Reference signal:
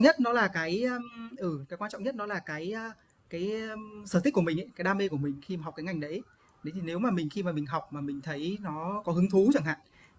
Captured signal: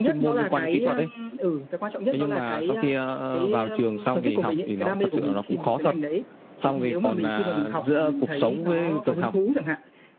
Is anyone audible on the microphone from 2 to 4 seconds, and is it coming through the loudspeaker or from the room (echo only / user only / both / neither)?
both